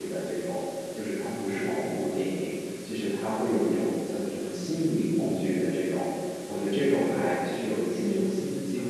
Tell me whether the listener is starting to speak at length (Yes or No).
No